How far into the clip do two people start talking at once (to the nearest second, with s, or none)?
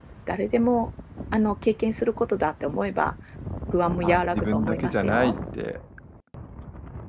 4 s